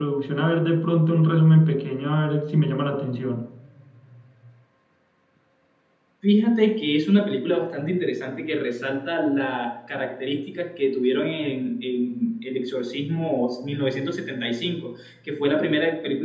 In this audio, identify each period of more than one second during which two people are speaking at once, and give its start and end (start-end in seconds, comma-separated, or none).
none